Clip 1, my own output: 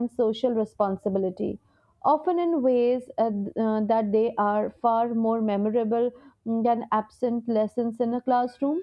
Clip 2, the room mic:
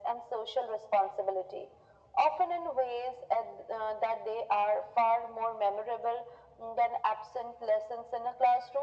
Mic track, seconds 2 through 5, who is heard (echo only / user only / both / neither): echo only